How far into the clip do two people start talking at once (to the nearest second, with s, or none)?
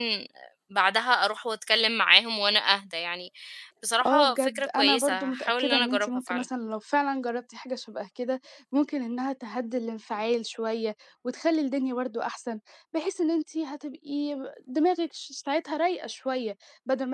4 s